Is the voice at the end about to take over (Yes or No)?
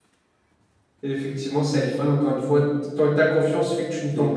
Yes